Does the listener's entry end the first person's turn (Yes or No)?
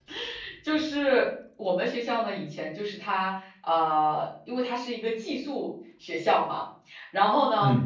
No